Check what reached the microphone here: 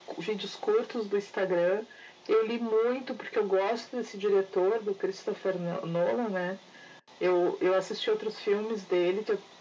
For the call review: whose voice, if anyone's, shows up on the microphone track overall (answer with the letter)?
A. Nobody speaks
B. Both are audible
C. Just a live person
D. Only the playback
D